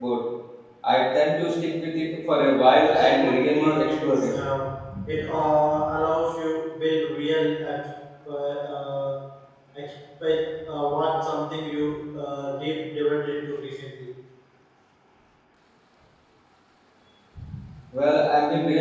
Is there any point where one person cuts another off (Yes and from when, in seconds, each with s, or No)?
Yes, from 2.8 s